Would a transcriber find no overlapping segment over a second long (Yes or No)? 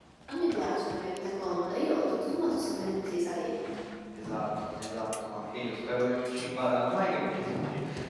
Yes